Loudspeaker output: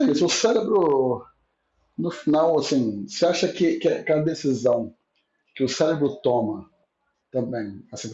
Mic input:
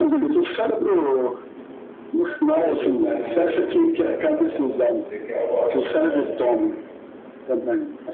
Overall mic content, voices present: both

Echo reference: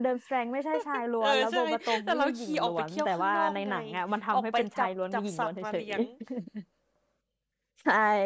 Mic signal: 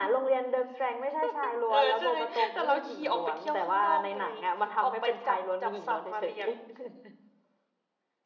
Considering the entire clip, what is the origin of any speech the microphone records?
echo only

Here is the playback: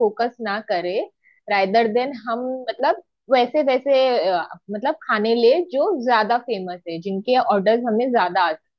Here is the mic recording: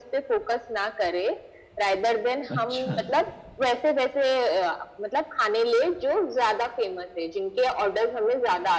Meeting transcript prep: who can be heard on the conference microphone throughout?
both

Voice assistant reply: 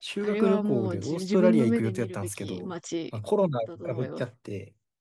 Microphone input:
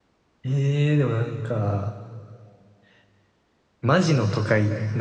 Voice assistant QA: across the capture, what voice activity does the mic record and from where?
user only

